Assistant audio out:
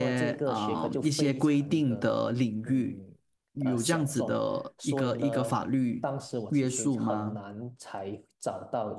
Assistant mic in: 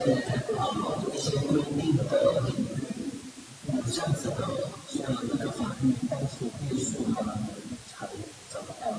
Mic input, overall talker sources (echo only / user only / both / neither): echo only